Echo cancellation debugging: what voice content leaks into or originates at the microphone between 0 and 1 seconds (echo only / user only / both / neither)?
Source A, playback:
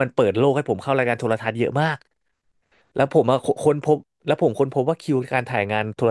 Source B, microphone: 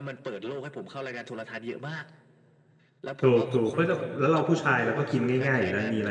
echo only